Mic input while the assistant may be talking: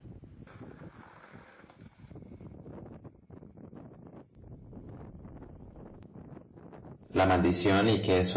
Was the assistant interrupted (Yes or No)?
Yes